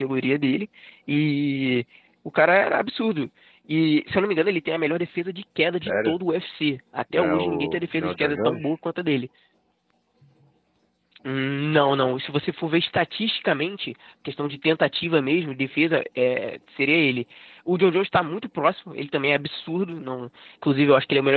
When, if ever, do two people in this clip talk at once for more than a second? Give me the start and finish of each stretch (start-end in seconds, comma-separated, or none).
7.1-8.8